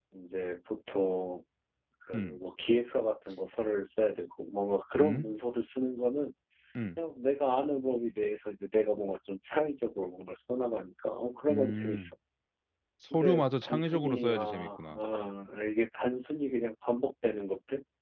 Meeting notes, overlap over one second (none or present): present